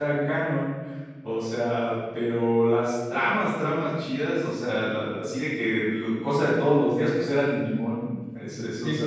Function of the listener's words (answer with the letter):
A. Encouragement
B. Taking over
A